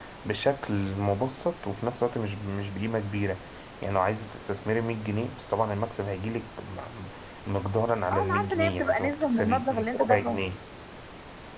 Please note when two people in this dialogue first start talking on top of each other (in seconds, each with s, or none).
8.1 s